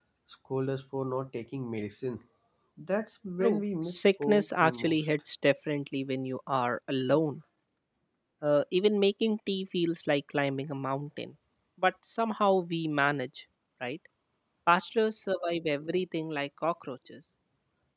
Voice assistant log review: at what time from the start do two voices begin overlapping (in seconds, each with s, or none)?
3.4 s